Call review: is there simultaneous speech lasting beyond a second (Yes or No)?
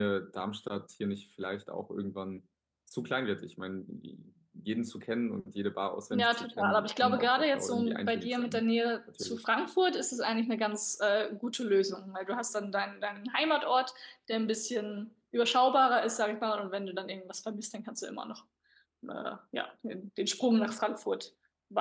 Yes